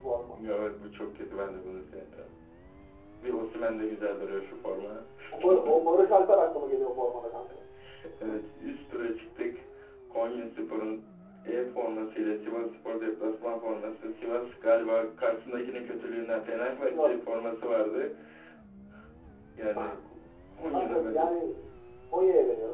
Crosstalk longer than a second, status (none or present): none